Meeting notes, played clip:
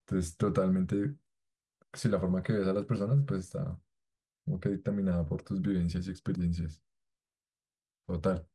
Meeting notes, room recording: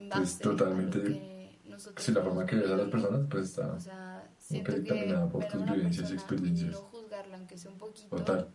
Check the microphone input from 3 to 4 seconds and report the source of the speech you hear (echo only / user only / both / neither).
both